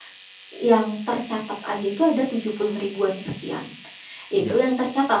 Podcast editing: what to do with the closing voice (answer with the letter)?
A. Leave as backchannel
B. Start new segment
A